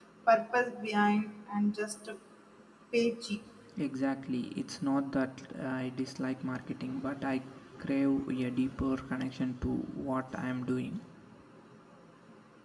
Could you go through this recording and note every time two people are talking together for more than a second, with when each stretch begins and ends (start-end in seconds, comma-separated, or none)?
none